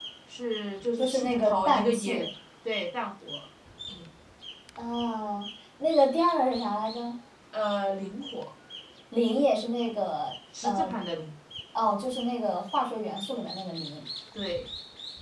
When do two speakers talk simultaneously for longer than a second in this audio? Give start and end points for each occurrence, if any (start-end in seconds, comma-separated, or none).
1.0-2.2